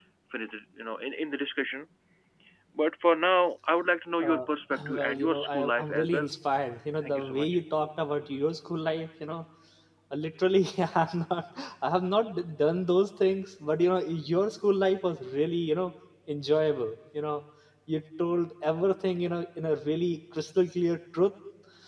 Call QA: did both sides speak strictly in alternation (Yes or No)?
No